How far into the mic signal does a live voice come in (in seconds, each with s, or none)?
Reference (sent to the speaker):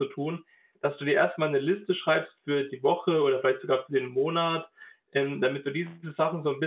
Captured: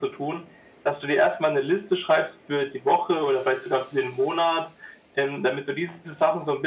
none